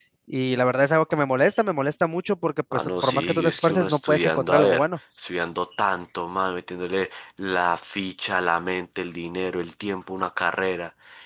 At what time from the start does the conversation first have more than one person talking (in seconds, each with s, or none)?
2.7 s